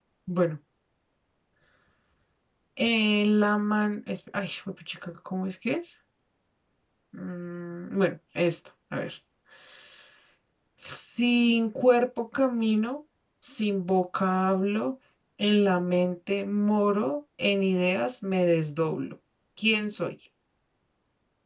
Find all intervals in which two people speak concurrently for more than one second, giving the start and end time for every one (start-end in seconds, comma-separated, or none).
none